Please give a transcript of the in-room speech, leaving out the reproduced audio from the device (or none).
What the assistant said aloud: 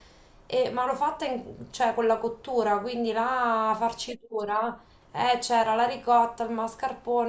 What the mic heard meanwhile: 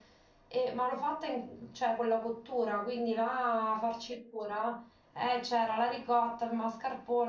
none